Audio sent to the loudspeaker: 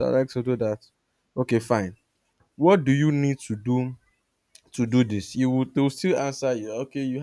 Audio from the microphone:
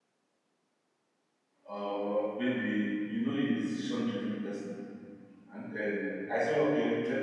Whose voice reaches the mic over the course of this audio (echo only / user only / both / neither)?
user only